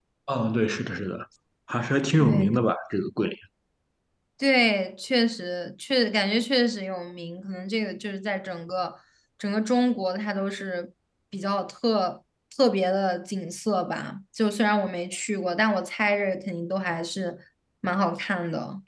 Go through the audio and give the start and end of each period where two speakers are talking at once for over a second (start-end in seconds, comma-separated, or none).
none